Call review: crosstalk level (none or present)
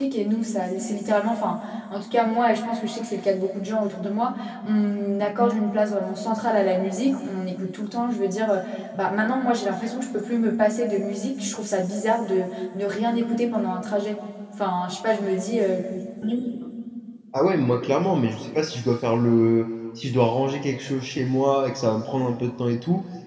none